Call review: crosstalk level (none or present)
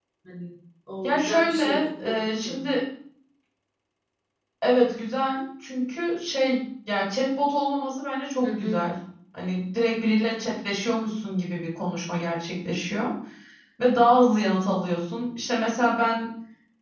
present